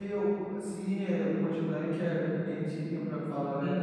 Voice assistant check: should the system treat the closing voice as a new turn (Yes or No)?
Yes